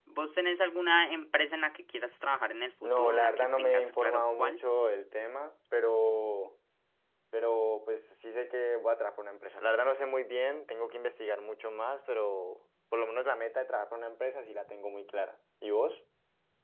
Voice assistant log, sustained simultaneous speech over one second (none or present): present